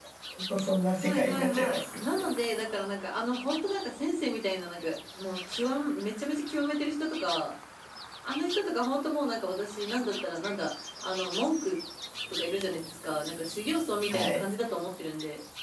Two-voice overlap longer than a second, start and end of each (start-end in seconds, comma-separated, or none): 1.0-2.3